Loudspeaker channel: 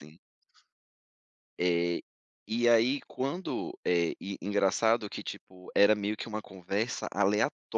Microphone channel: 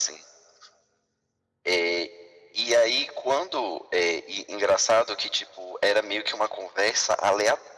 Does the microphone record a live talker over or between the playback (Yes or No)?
No